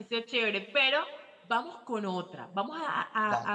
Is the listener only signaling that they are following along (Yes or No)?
Yes